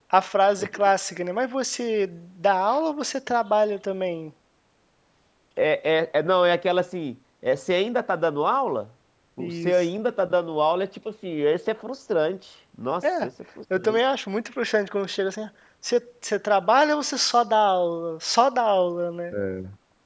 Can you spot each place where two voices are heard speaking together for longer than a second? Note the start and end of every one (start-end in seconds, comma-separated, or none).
none